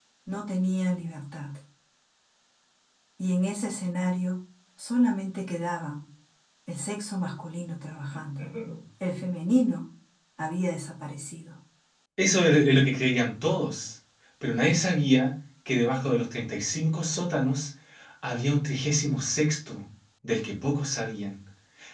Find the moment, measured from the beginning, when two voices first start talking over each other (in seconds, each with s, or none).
none